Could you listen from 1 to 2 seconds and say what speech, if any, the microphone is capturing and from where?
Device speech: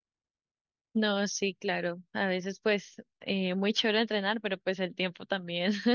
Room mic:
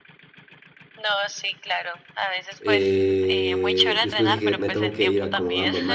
echo only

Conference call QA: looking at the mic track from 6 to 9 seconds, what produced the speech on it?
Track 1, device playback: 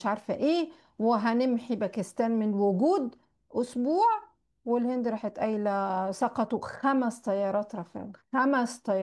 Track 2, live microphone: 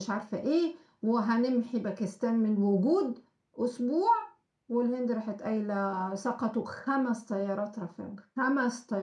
echo only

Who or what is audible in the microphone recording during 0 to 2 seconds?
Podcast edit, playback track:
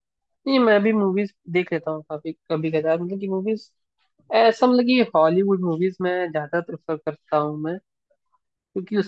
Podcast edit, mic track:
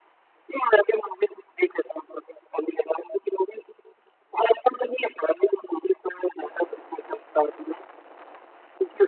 echo only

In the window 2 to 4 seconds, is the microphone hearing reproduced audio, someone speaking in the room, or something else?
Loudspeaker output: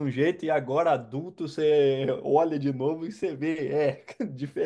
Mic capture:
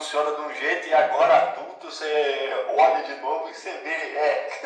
echo only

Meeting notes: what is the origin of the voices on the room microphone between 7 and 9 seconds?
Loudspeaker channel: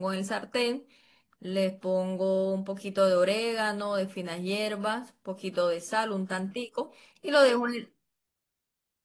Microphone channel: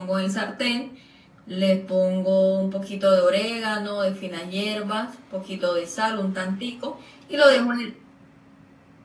echo only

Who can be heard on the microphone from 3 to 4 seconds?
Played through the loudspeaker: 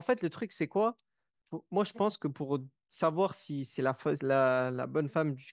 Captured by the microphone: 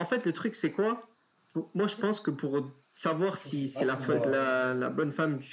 both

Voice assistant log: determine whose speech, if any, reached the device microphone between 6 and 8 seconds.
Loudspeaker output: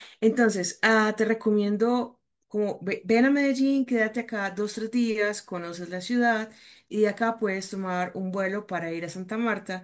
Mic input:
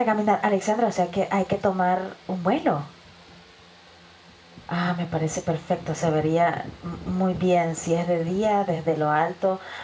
user only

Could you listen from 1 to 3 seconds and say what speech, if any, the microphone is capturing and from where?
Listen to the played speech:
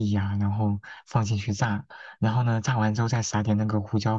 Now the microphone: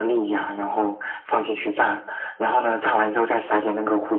echo only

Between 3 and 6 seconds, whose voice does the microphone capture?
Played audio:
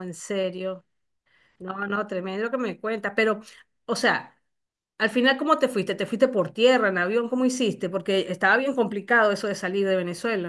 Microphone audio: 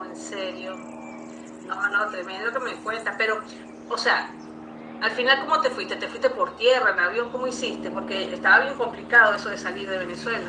echo only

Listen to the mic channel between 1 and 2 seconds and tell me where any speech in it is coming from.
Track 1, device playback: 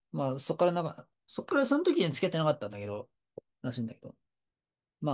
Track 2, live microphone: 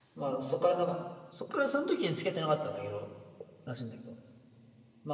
echo only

